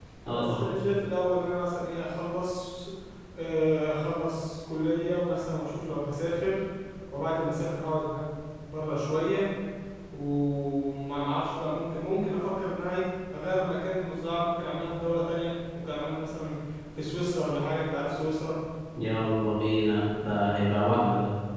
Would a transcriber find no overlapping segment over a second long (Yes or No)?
Yes